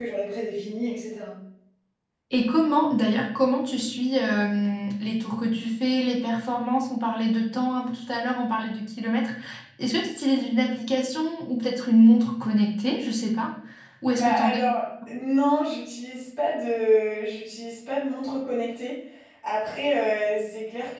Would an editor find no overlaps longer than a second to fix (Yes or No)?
Yes